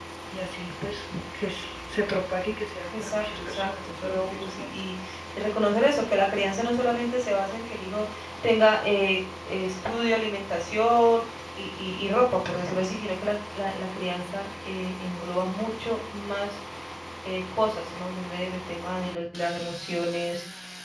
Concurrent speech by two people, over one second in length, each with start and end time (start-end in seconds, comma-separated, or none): 3.0-4.7